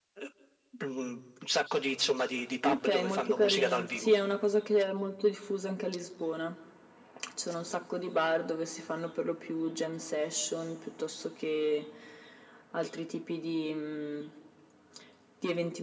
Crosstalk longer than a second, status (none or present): present